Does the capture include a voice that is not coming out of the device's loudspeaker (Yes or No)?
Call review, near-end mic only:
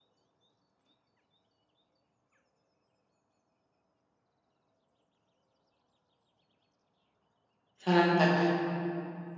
Yes